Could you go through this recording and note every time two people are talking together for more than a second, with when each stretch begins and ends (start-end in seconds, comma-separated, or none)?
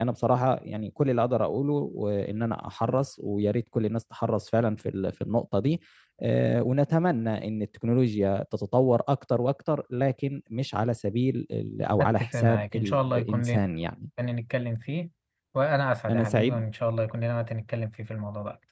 12.0-13.6